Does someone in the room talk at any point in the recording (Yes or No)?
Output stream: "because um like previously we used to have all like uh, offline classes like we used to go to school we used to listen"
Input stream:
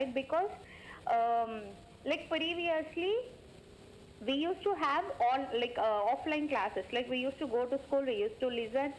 No